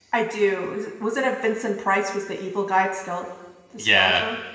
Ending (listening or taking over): taking over